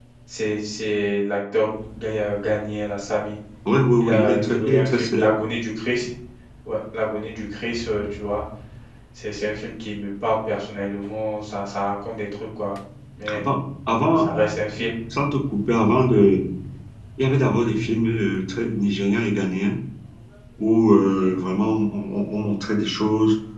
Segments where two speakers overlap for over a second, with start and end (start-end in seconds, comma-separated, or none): 4.0-5.3